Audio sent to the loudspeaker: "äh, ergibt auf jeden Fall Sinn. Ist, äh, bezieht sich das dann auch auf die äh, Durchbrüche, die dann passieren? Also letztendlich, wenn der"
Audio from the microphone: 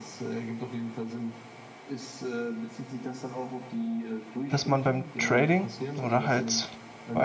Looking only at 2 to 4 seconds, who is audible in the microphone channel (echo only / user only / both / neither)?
echo only